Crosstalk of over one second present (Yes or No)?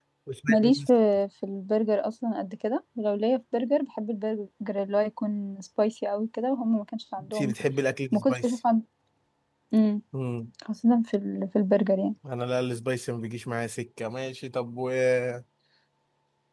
No